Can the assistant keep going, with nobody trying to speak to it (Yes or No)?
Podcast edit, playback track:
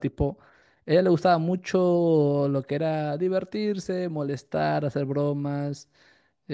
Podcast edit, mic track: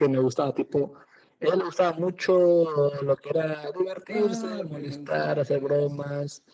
No